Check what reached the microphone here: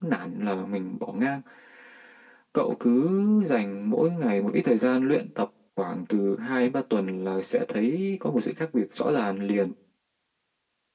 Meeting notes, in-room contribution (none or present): none